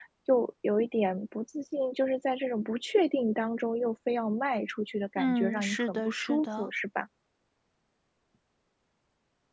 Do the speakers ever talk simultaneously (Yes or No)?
Yes